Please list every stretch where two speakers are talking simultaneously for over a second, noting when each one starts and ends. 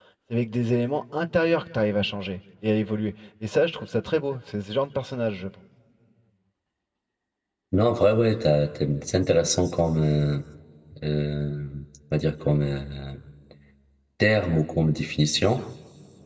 none

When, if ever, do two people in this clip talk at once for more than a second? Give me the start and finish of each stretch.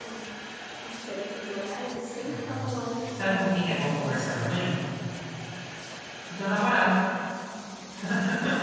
2.2-4.2

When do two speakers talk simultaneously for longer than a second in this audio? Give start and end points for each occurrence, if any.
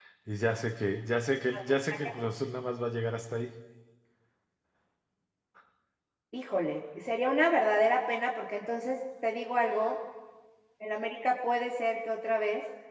none

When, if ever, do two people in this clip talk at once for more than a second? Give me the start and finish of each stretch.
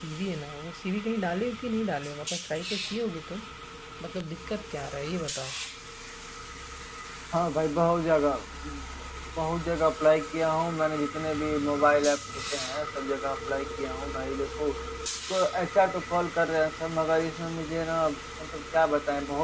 none

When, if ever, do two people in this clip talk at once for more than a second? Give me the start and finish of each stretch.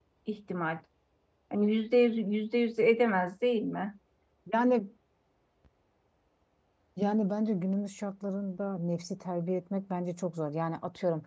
none

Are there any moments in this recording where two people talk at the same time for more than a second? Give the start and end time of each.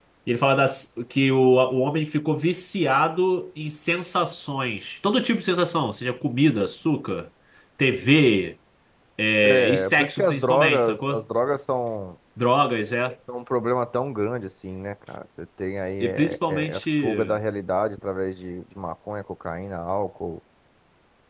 9.4-11.2, 16.0-17.4

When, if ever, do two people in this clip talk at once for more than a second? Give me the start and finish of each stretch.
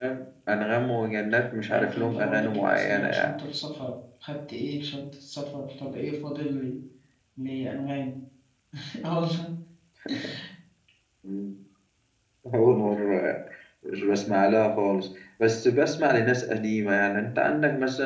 1.7-3.1

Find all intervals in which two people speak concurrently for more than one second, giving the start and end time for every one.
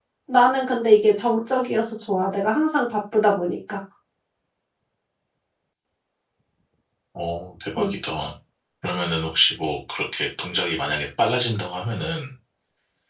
none

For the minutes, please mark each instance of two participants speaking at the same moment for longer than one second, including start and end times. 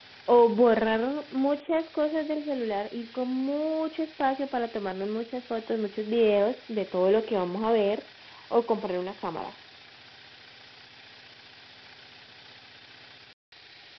none

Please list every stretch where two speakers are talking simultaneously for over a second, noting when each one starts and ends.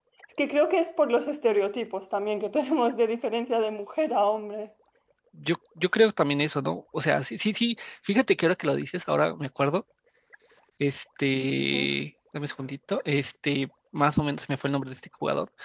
none

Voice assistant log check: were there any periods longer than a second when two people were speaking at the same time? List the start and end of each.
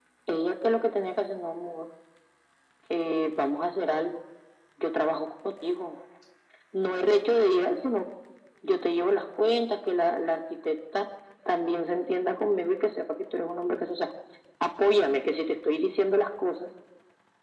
none

